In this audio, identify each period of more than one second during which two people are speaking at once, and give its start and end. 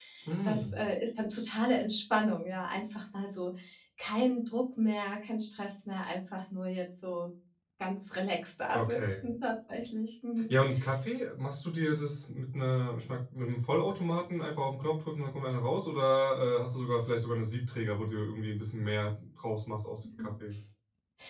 none

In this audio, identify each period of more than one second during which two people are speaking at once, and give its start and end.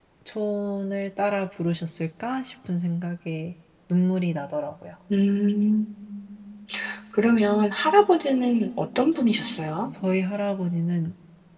none

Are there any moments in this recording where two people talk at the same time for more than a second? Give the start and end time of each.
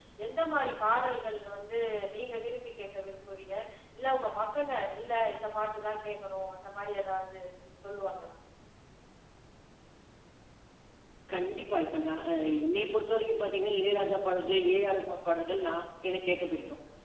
none

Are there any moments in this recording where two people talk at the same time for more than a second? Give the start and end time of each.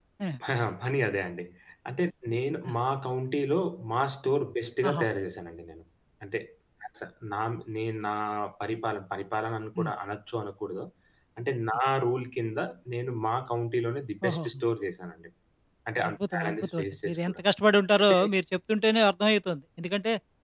16.1-17.4

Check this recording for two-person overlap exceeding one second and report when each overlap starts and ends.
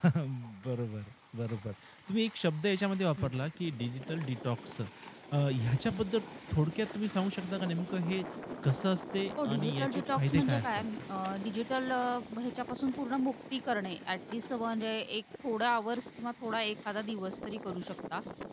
9.4-11.0

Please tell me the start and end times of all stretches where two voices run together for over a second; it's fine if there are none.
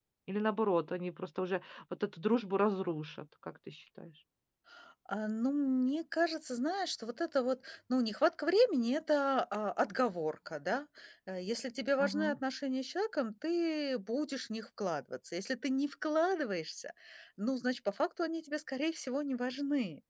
none

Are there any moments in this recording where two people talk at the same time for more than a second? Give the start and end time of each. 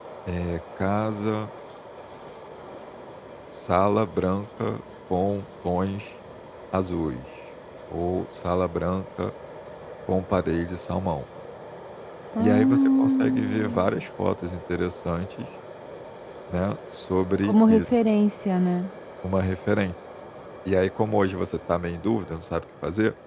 12.4-13.8

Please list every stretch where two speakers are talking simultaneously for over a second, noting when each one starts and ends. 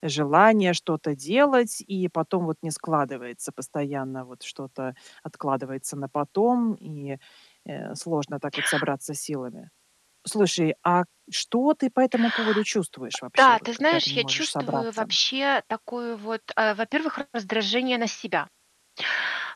13.4-15.0

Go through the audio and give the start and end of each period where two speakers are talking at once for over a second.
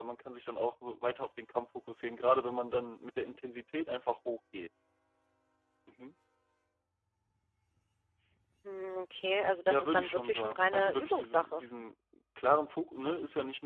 9.7-11.6

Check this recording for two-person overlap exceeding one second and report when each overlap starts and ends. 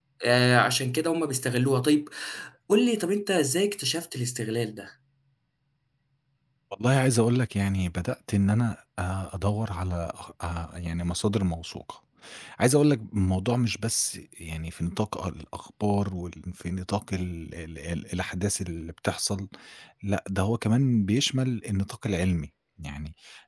none

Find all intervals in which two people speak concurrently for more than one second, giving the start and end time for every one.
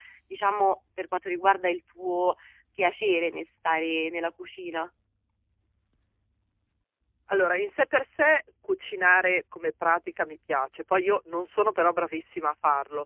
none

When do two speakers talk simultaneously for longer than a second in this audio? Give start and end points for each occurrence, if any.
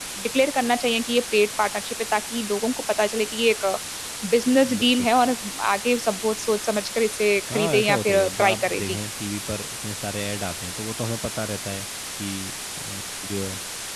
7.5-9.0

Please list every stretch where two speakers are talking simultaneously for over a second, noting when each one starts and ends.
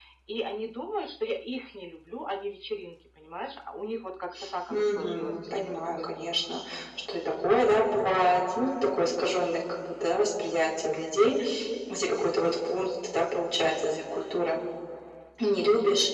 4.7-6.4

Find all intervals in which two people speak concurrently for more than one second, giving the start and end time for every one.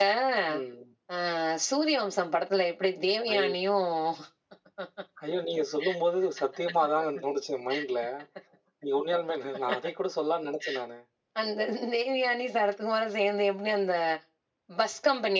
none

